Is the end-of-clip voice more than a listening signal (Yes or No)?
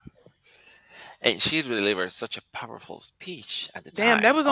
Yes